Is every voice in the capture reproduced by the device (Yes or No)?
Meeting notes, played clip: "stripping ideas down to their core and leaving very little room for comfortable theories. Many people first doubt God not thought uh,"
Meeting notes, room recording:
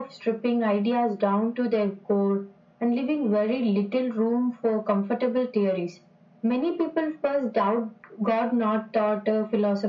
Yes